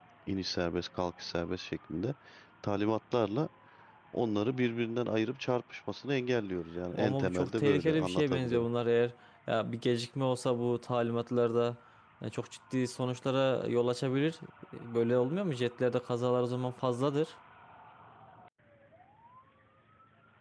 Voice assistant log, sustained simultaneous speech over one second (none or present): present